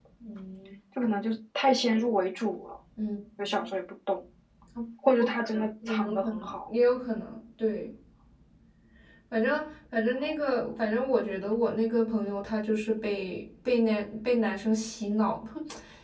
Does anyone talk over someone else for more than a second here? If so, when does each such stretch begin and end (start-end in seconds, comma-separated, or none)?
5.2-6.7